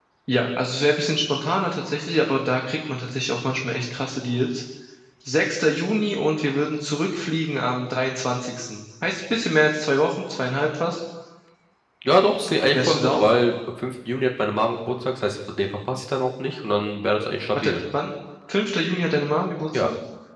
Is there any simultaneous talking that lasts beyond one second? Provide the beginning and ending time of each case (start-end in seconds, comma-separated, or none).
none